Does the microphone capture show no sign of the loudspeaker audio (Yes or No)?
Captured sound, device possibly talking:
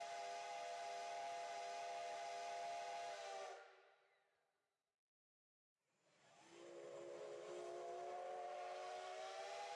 Yes